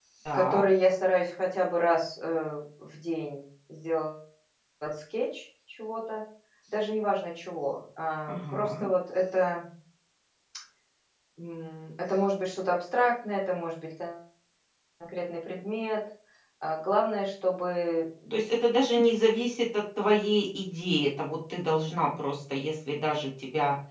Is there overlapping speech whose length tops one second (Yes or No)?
No